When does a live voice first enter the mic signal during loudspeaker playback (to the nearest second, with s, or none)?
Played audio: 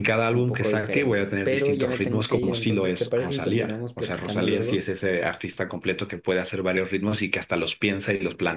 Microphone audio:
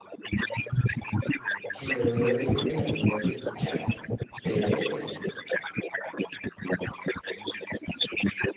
2 s